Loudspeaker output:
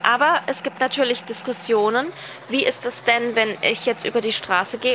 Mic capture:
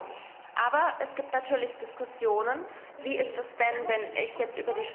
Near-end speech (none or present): present